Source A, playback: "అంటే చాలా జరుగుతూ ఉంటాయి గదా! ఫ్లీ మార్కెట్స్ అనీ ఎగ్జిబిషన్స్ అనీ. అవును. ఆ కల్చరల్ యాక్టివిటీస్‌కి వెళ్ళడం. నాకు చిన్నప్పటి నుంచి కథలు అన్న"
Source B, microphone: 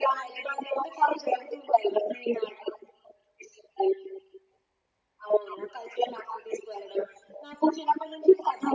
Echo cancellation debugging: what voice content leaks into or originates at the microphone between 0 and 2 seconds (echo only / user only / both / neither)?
echo only